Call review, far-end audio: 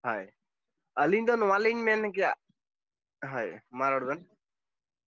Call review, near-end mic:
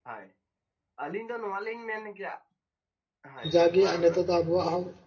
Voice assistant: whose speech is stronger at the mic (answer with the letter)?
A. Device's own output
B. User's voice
B